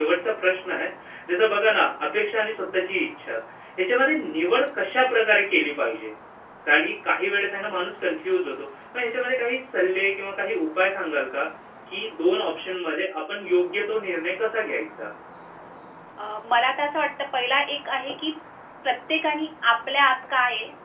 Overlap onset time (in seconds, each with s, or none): none